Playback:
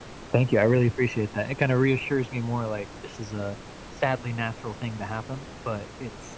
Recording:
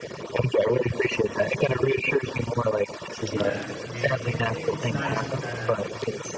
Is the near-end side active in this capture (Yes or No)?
Yes